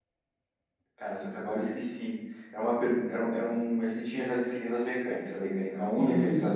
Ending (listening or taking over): taking over